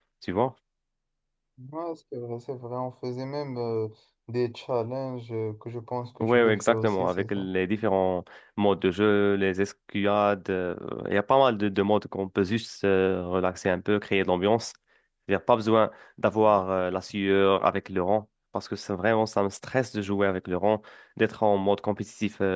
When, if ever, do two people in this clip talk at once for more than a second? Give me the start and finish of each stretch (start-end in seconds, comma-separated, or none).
6.2-7.5